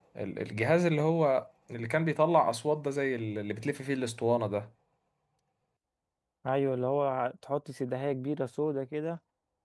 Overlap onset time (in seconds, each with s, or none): none